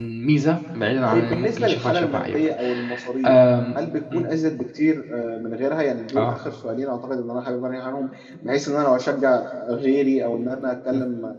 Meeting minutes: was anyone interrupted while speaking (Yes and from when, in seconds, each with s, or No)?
Yes, from 1.1 s